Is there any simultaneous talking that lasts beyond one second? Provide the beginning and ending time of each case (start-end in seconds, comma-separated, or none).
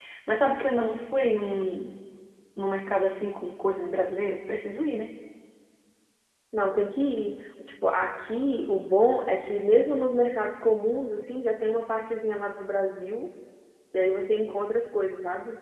none